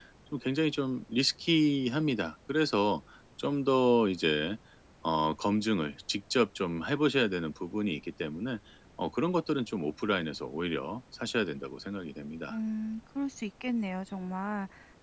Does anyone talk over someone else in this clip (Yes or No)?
No